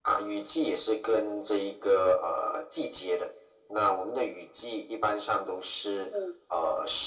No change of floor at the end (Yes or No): Yes